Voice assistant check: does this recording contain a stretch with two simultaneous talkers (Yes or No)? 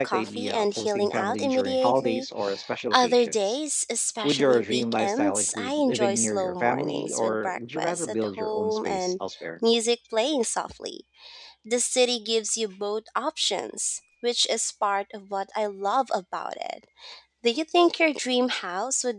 Yes